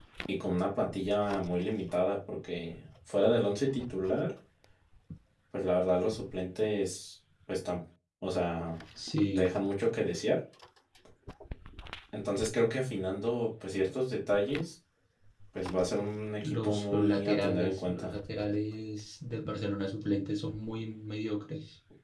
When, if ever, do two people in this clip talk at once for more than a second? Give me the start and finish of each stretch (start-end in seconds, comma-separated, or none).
16.4-18.1